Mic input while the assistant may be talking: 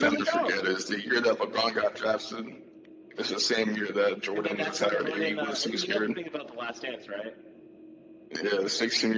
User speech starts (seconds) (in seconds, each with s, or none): none